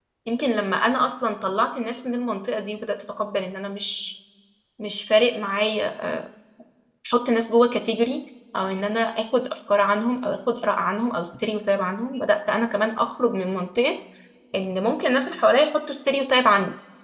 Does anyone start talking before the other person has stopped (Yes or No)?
No